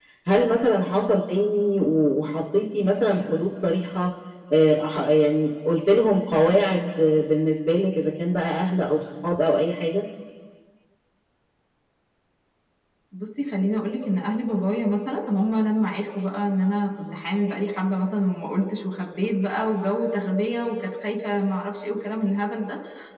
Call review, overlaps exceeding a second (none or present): none